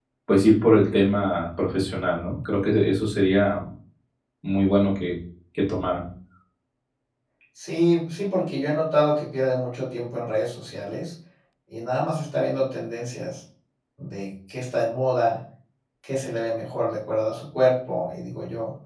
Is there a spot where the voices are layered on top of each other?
No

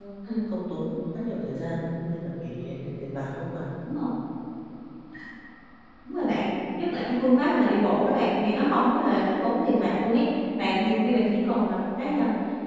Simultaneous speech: No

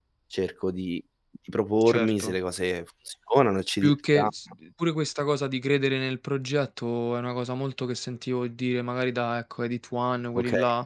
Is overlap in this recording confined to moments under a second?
Yes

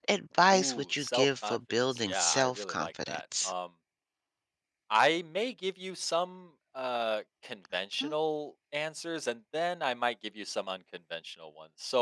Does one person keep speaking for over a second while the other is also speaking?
Yes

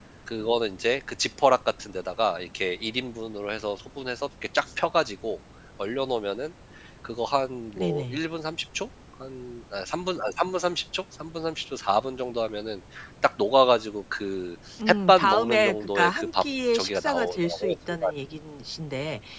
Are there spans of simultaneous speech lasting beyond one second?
Yes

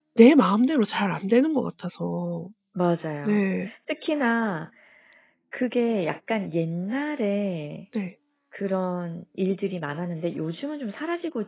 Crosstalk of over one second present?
No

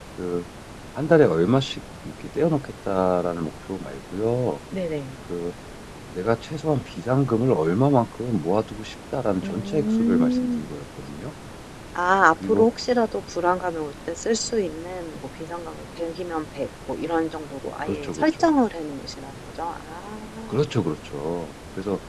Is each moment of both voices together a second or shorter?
No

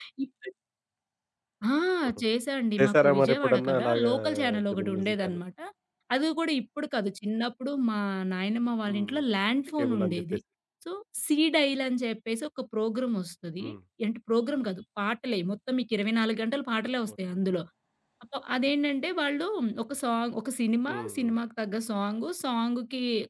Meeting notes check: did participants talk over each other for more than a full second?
Yes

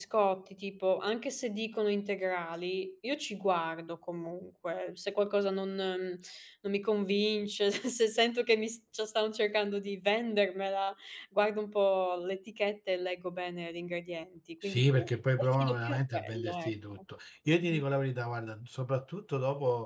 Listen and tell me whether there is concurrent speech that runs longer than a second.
Yes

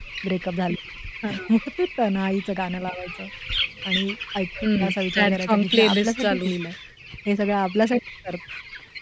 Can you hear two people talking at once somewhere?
Yes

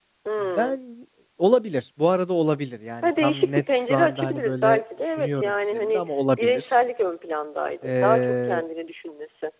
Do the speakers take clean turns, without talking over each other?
No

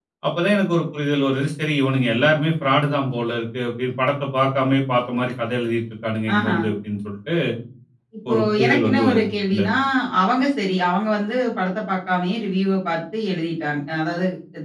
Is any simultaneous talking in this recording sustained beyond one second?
Yes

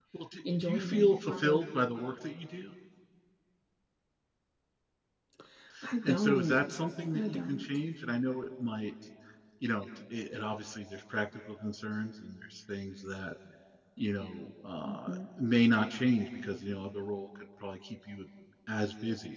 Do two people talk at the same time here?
Yes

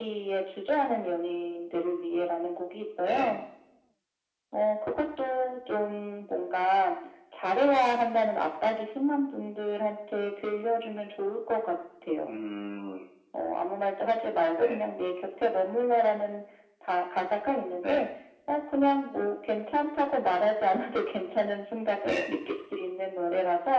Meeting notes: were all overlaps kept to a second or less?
Yes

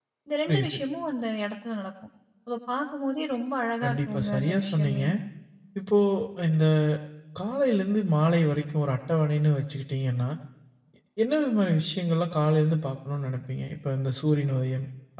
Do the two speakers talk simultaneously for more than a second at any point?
Yes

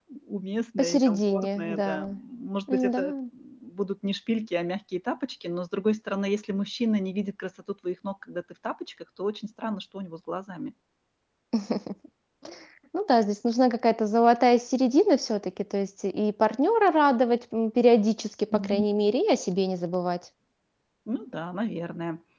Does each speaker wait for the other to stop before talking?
No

